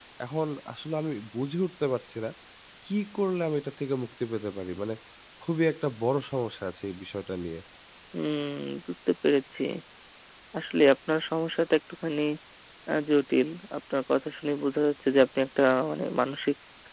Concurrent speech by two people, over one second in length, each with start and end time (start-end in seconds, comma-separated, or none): none